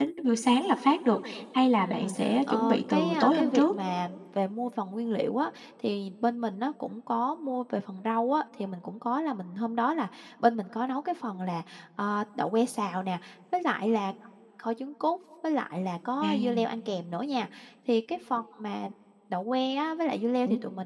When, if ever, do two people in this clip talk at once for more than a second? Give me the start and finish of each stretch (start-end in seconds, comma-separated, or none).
1.9-3.7